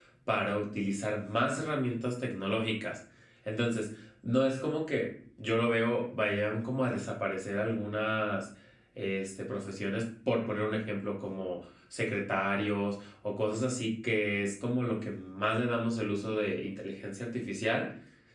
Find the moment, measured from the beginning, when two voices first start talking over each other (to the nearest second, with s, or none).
none